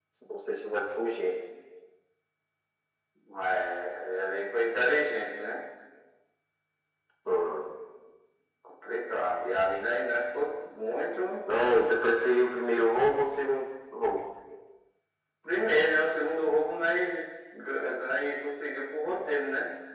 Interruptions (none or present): none